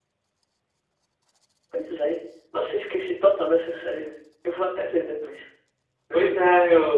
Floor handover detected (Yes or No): Yes